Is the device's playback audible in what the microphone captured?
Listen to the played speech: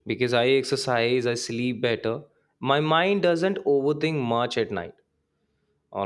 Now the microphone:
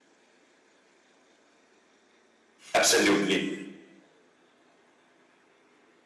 No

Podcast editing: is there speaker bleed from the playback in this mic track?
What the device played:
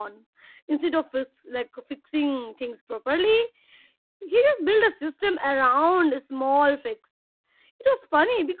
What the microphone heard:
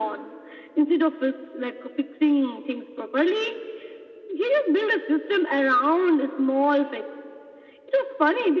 Yes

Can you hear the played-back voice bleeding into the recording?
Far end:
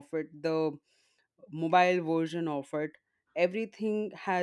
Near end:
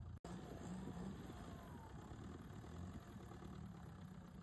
No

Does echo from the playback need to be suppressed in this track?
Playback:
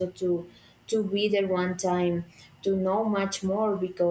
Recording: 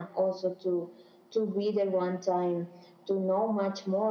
Yes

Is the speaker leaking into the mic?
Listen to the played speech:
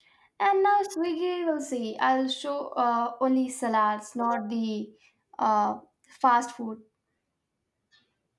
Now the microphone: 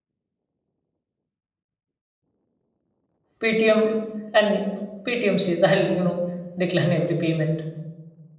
No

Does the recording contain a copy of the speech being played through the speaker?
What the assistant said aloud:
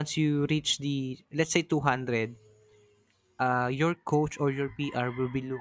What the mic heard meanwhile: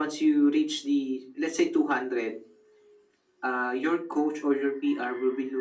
Yes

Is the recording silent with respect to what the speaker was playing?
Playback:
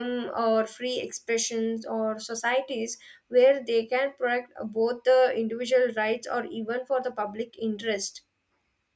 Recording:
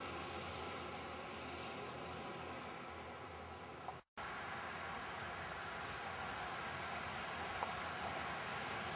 Yes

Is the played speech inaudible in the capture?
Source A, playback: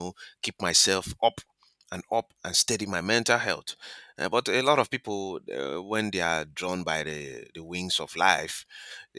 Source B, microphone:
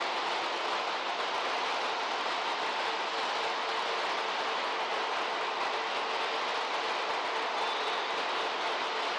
Yes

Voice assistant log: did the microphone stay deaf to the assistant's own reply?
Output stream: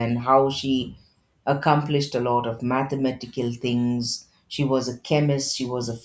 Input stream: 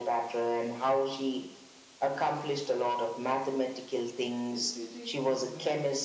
No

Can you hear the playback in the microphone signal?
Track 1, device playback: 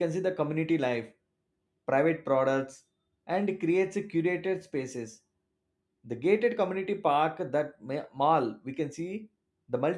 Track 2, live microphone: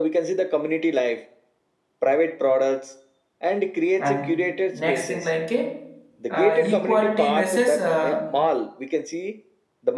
Yes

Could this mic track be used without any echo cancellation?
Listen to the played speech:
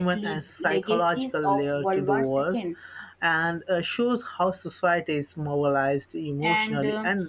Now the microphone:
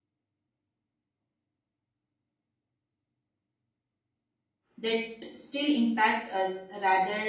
Yes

